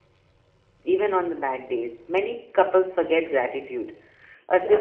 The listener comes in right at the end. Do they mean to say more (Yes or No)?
No